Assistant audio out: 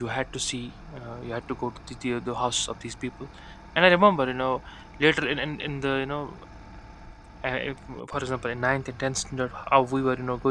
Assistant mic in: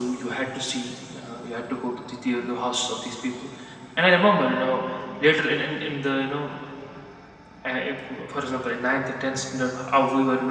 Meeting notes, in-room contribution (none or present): none